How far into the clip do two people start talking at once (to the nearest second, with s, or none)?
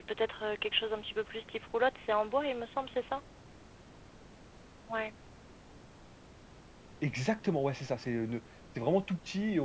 none